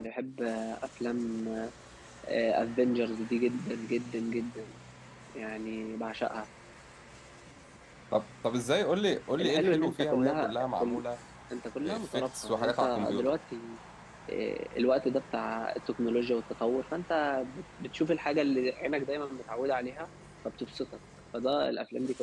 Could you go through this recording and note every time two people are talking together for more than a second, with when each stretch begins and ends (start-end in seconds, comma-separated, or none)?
9.4-11.0, 11.8-13.3